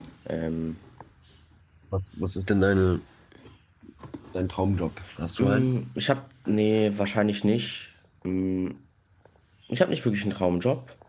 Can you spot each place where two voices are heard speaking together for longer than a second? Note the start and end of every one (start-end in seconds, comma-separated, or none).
none